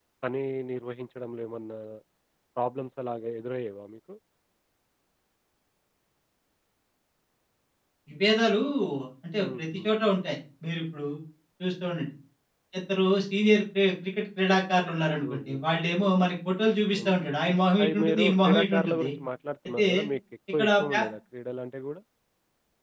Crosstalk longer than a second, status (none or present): present